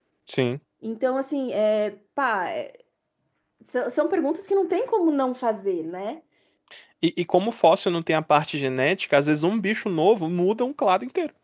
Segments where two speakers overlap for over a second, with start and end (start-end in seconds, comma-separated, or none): none